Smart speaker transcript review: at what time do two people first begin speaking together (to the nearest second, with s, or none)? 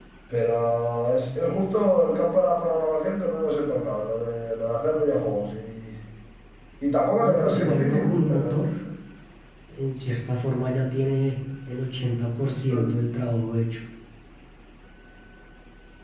7 s